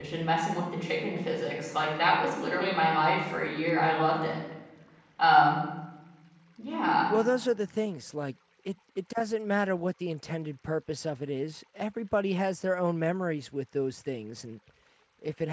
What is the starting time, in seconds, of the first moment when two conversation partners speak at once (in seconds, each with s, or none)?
none